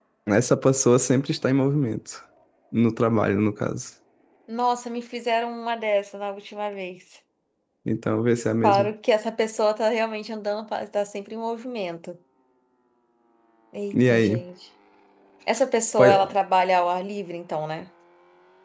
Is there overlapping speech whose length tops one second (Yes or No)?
No